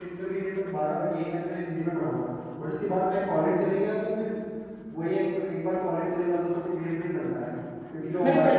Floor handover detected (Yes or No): Yes